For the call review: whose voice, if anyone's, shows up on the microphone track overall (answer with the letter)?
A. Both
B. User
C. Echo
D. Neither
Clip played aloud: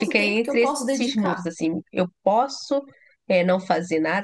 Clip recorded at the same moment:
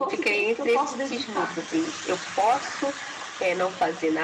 C